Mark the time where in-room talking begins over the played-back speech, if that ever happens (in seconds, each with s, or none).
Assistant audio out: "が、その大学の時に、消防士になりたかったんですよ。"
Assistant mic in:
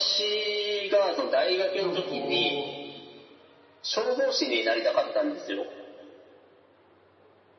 1.8 s